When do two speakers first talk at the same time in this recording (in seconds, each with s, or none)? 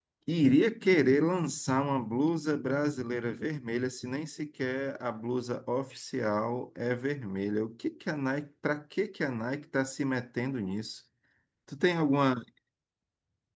none